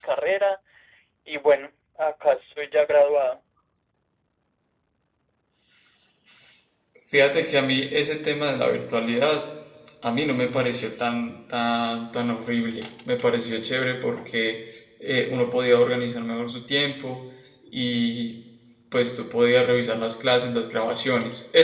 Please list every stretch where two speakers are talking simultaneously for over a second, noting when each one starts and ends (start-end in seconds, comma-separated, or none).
none